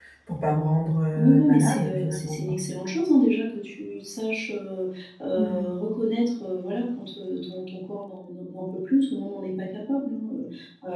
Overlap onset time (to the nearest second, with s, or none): 1 s